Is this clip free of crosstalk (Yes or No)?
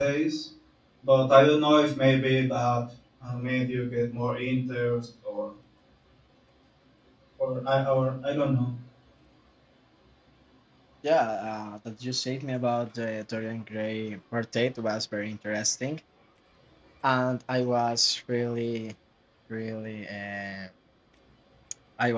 Yes